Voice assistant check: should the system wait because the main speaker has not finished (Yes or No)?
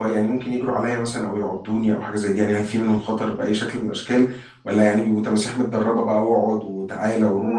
No